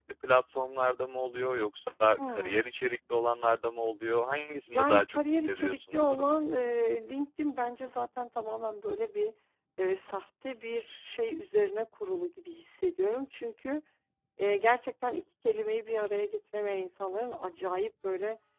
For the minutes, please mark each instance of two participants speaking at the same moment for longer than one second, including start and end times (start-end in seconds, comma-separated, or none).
4.7-6.3